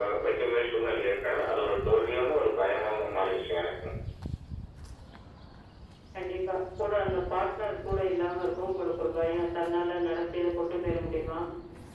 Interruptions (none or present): none